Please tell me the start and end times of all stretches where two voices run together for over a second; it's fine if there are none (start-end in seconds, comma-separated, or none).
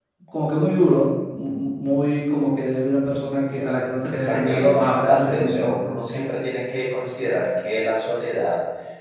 4.1-5.8